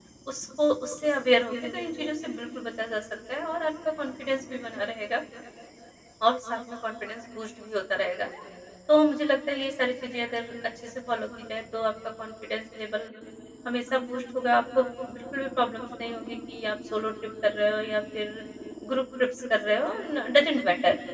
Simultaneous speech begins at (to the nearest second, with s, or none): none